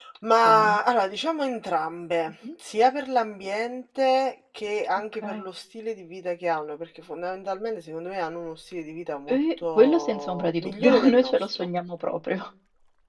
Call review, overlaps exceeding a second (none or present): present